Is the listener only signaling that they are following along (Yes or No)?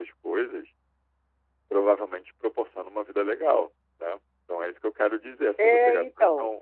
No